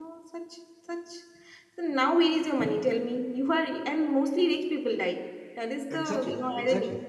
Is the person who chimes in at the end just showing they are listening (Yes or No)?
No